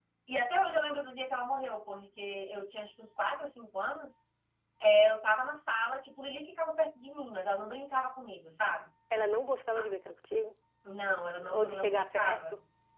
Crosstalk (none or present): present